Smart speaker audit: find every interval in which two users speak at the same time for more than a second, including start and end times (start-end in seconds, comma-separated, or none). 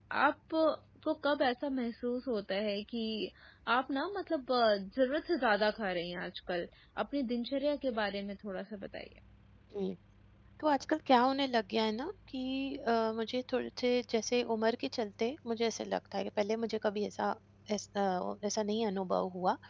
none